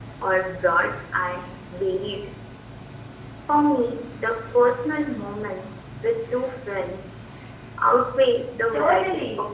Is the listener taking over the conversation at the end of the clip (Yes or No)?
Yes